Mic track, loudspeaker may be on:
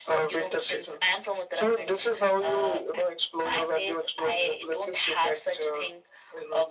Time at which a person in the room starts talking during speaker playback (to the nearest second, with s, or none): none